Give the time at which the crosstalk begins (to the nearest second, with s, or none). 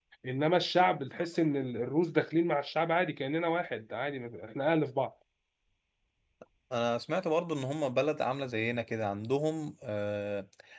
none